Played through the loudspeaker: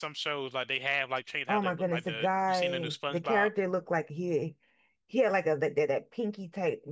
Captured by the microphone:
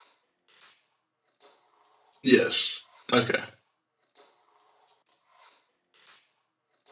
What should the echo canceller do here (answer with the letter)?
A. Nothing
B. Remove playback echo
A